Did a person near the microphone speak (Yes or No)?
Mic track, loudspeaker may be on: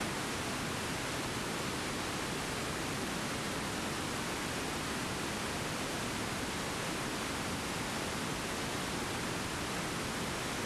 No